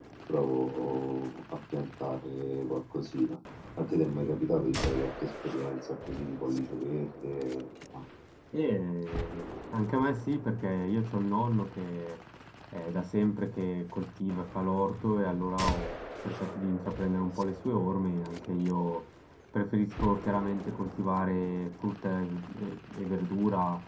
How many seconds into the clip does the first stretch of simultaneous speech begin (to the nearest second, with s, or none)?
none